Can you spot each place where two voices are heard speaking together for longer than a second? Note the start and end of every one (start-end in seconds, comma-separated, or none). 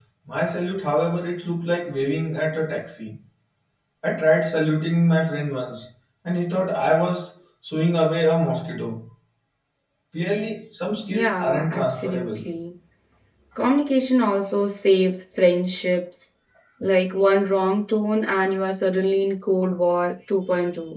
11.1-12.5